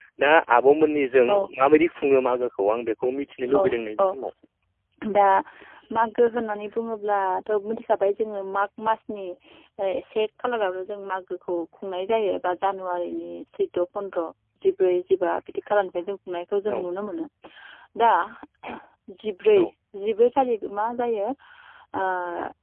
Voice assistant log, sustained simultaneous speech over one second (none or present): none